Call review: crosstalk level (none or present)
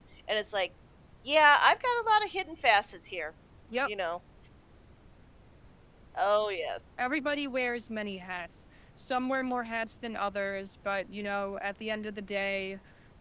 none